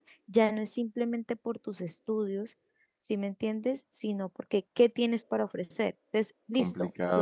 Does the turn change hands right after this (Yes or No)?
Yes